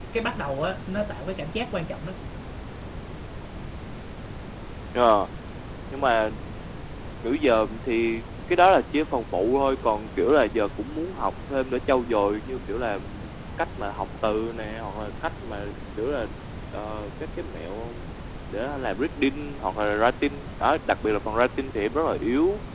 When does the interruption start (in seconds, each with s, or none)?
none